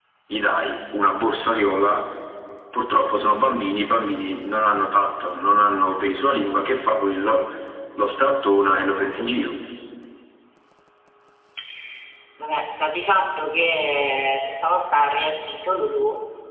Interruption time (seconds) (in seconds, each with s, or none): none